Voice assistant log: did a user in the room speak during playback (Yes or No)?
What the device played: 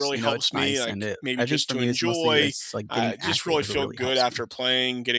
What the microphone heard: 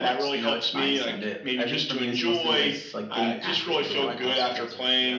Yes